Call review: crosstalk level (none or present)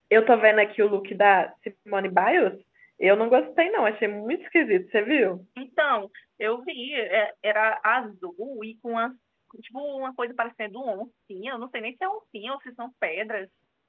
none